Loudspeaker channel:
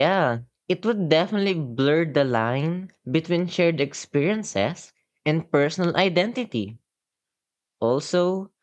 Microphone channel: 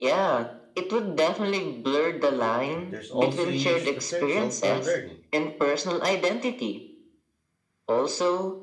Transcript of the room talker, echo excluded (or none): But there's also a huge potential for learning.